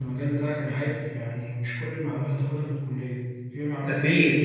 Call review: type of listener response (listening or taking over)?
taking over